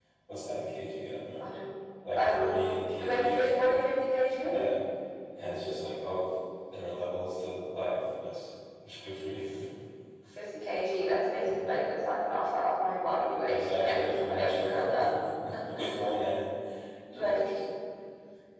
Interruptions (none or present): present